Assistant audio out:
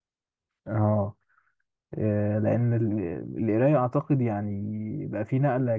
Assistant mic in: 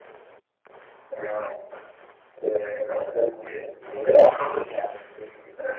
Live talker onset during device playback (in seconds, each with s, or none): none